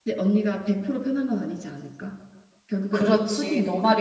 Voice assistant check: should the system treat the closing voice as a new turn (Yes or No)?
Yes